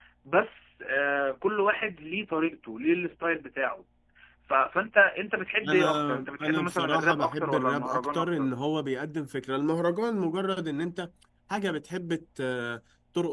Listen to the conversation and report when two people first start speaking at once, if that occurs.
5.6 s

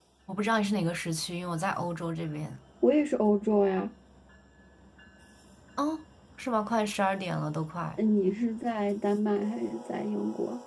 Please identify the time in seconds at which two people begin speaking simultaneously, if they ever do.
none

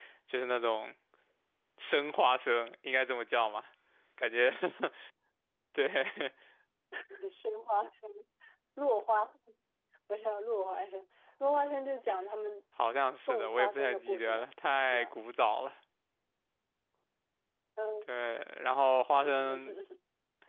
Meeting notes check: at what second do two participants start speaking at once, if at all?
13.2 s

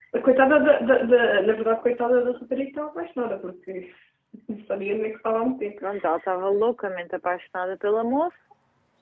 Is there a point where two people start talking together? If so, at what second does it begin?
none

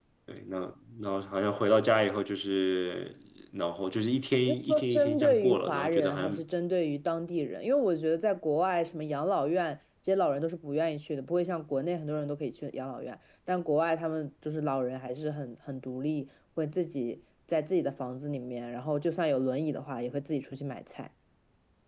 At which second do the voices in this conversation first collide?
4.5 s

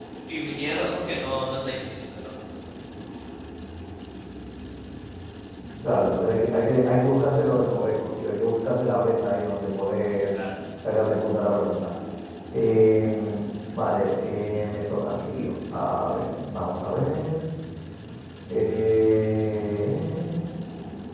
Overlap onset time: none

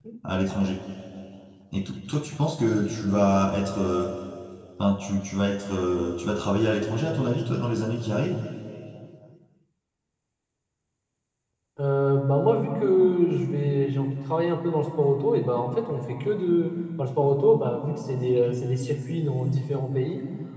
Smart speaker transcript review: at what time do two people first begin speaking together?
none

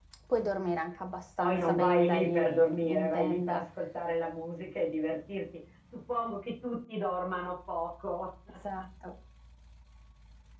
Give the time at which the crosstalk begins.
1.4 s

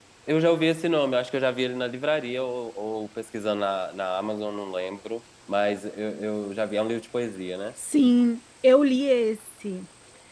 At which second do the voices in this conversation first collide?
none

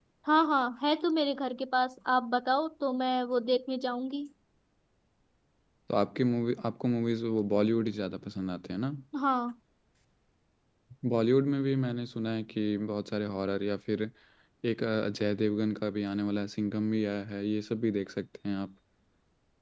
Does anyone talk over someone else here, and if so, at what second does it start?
none

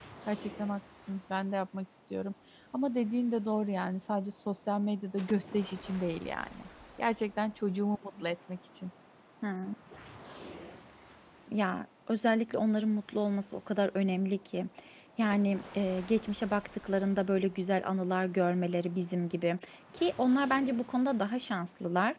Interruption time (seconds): none

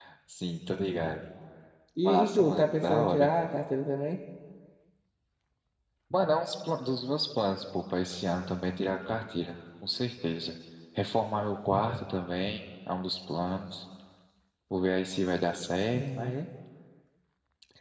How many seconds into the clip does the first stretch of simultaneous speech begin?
2.0 s

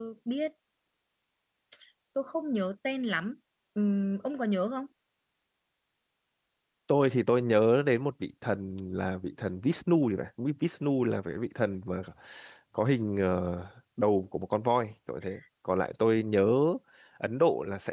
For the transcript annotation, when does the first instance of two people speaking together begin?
none

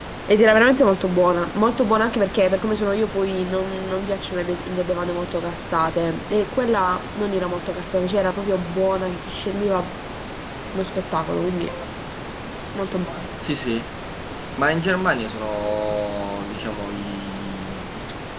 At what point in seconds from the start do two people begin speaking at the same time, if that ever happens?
none

